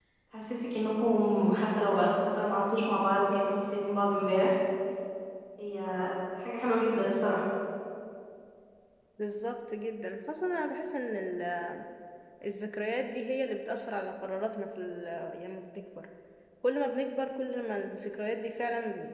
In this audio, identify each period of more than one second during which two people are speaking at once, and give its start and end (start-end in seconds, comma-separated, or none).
none